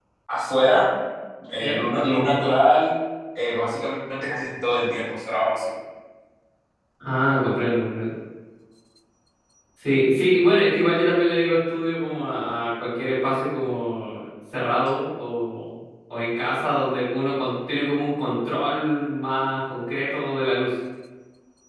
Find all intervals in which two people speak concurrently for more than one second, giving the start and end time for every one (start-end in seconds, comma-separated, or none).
none